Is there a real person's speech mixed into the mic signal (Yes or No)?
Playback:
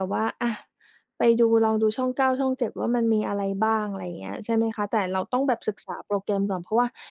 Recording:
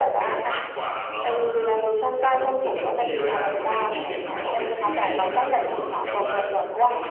Yes